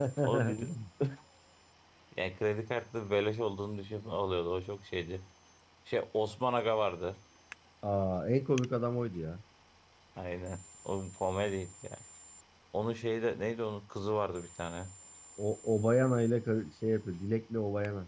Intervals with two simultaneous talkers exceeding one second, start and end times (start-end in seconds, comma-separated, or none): none